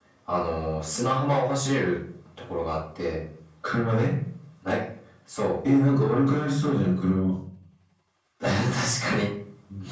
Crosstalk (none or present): none